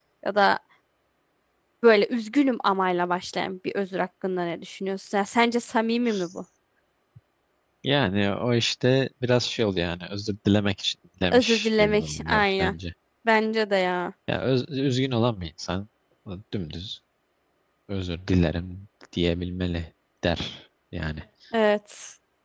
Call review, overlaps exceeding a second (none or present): present